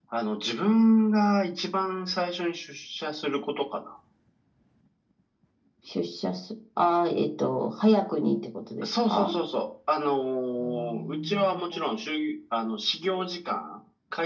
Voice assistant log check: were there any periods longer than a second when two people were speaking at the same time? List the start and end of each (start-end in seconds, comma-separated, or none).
10.6-11.8